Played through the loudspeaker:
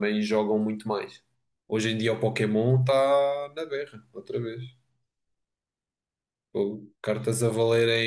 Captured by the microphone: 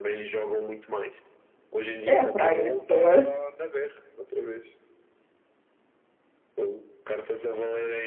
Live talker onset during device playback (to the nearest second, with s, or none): 2 s